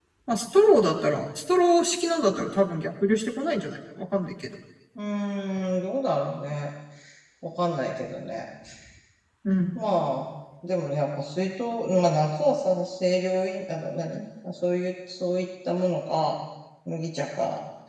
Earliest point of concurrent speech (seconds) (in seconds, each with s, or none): none